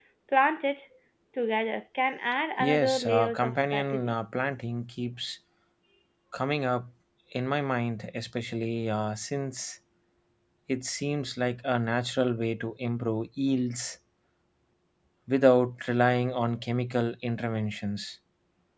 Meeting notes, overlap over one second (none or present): present